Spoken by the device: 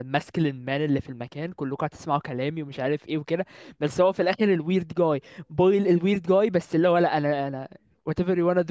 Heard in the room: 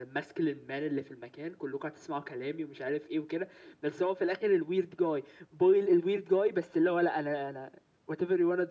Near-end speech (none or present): none